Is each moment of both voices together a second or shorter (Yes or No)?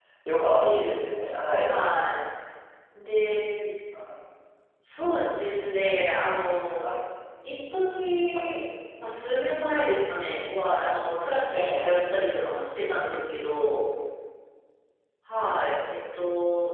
Yes